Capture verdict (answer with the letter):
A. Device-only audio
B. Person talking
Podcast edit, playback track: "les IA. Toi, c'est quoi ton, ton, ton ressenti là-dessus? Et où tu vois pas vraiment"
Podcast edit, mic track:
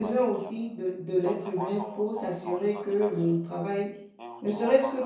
B